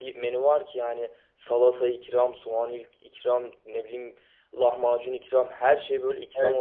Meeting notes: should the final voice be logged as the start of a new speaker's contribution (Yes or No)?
Yes